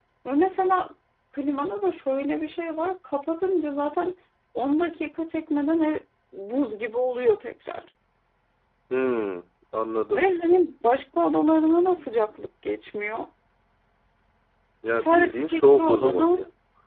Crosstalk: present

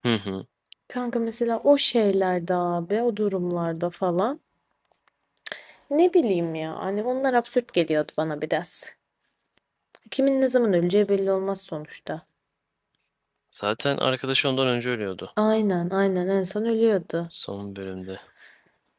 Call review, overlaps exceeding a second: none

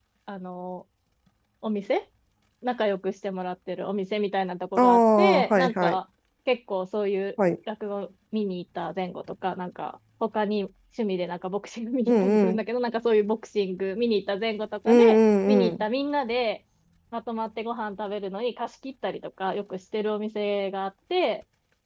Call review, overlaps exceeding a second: present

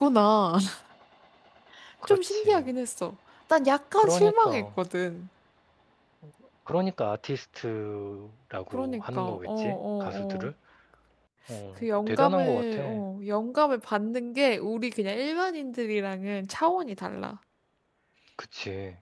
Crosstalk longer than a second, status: present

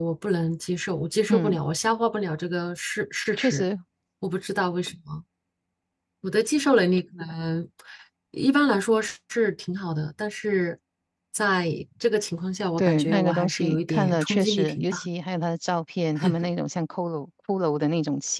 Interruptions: present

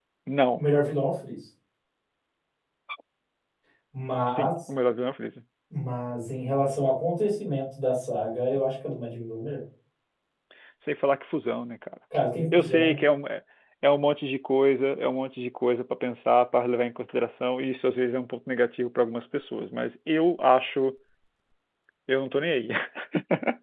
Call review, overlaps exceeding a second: none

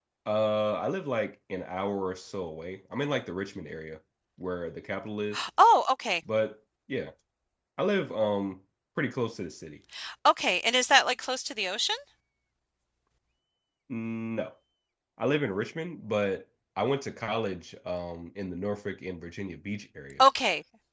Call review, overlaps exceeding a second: none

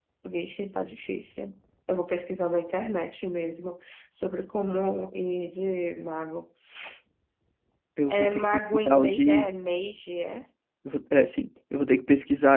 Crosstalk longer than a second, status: present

